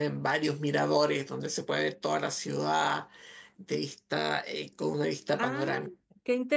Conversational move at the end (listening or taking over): taking over